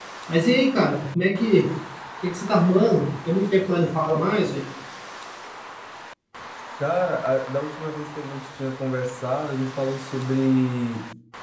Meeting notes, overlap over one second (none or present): none